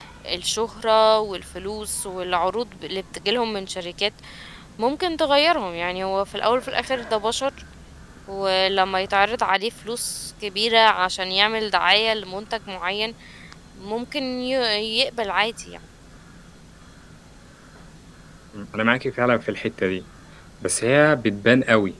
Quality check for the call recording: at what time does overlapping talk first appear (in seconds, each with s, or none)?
none